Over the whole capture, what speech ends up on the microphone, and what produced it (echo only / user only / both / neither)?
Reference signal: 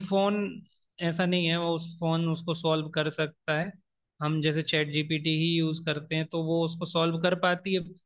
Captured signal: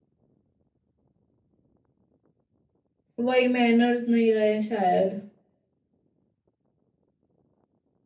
user only